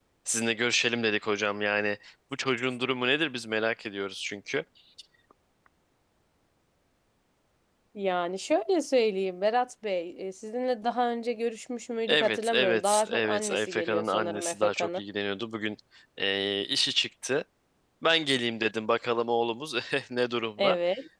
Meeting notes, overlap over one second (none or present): present